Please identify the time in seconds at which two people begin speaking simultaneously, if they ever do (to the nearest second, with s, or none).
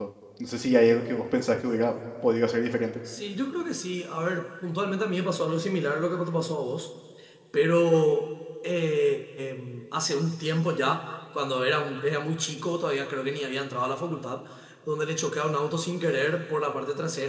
none